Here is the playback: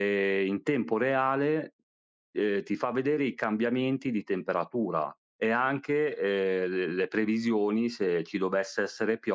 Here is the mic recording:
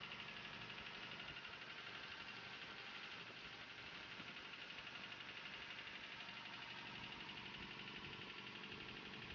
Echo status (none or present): none